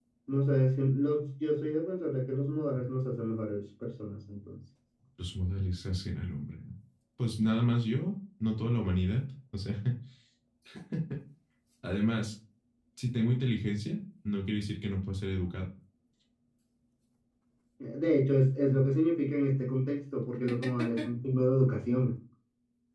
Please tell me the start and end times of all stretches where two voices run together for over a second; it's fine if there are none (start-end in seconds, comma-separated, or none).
none